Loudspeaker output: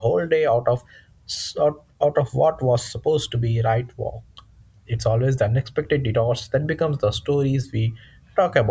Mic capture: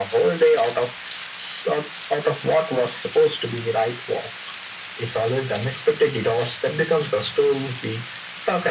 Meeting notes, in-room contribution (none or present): none